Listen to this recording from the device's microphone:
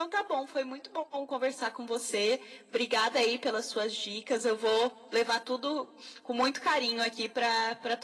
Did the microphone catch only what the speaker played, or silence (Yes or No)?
Yes